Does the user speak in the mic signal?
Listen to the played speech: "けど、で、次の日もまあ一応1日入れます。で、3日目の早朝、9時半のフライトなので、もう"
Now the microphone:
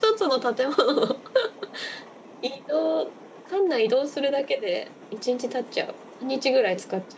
Yes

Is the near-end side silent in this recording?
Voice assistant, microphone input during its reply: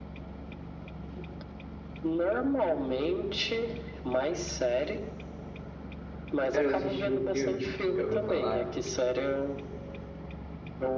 No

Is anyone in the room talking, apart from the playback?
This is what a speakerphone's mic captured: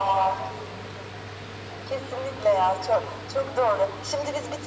No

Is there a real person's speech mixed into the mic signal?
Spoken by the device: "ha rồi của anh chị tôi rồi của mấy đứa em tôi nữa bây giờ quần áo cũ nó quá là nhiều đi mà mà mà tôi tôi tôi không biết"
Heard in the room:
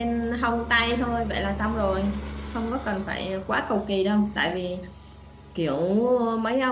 Yes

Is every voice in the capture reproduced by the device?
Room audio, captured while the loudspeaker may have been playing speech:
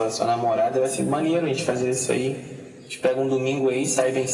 Yes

